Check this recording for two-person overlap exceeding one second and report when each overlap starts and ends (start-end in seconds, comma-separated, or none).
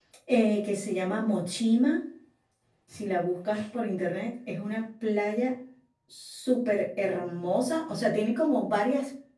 none